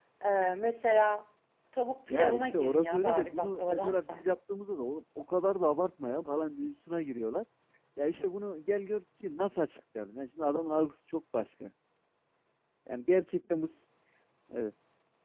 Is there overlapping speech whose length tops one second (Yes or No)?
Yes